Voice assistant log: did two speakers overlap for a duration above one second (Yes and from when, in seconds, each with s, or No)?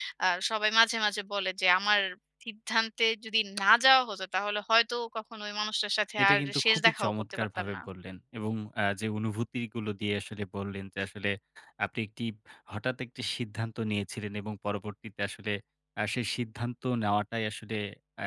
Yes, from 6.2 s